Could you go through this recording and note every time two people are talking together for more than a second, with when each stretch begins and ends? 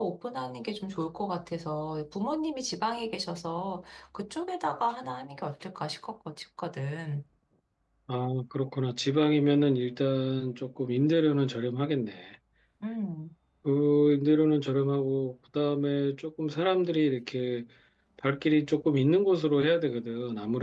none

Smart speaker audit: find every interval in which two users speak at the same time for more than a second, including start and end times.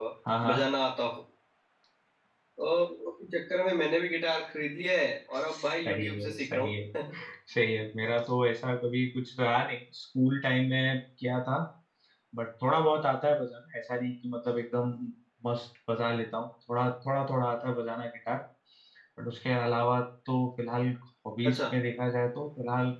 5.5-6.7

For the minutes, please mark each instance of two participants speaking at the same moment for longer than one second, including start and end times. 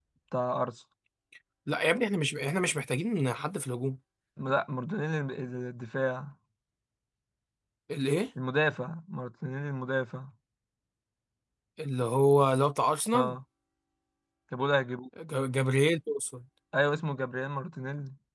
none

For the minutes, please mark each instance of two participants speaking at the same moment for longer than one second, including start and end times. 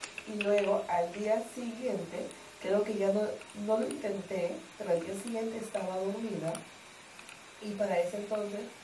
none

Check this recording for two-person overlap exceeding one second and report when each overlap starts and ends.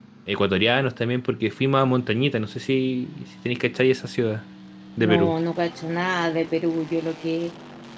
none

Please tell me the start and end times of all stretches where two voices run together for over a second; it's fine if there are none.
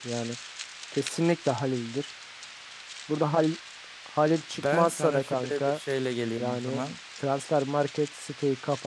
4.5-5.8

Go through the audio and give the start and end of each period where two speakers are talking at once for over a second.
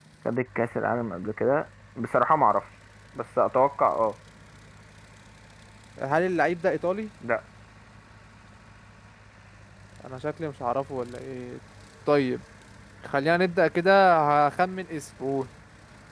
none

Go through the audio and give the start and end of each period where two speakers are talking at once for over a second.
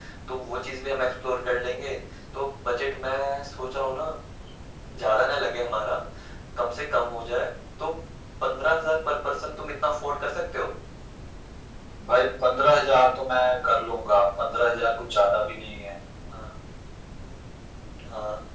none

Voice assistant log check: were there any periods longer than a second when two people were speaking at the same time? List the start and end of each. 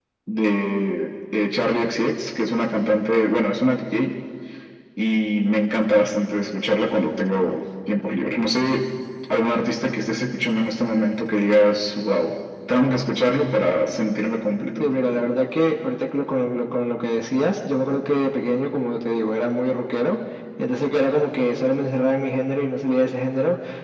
none

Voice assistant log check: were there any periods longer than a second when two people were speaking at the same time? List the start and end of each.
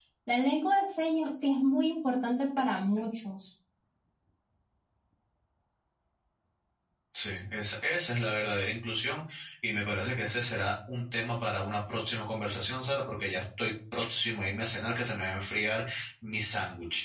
none

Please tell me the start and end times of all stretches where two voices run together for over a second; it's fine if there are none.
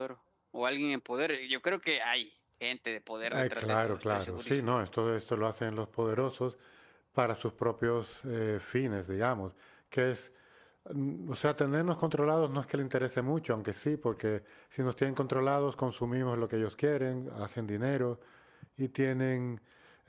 3.3-4.8

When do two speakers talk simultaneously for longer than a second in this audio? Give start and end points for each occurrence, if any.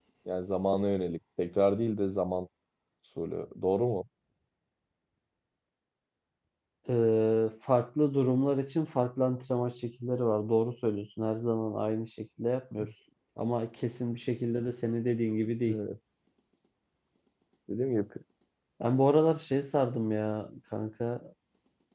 none

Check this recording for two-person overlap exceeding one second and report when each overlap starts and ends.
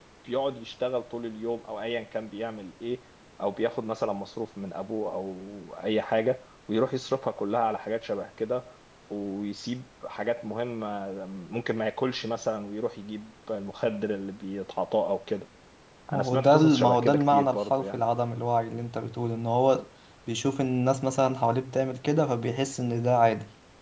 16.1-18.0

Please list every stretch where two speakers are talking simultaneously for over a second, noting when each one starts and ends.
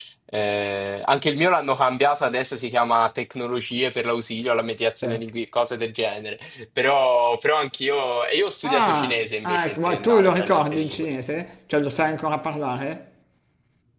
8.7-11.1

